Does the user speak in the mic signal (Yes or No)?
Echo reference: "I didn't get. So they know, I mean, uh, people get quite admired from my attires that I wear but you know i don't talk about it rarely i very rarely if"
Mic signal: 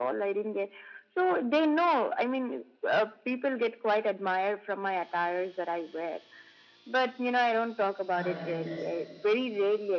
Yes